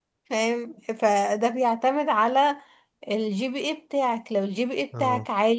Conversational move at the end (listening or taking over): listening